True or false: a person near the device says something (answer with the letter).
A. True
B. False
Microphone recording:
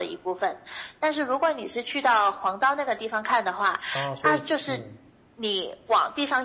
A